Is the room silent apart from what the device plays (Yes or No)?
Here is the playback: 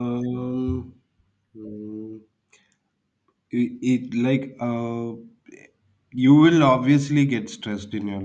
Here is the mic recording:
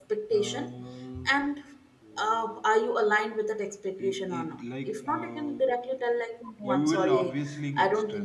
No